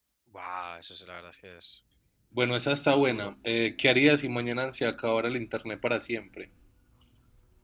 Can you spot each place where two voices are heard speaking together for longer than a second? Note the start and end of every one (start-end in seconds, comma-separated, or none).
none